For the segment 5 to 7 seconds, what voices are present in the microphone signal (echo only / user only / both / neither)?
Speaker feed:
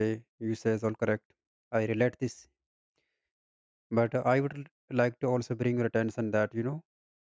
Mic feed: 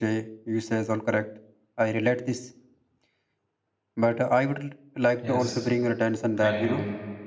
both